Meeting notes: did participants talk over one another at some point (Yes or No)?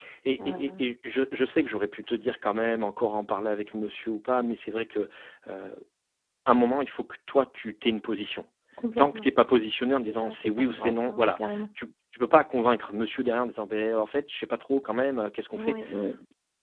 Yes